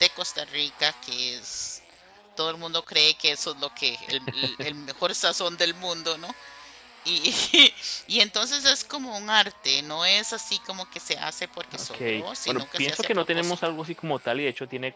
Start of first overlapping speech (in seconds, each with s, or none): 11.7 s